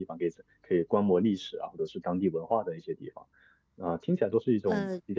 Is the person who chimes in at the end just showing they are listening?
Yes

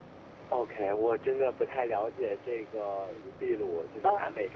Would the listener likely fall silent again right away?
Yes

